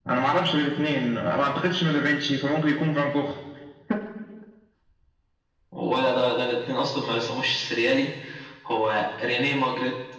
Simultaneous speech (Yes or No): No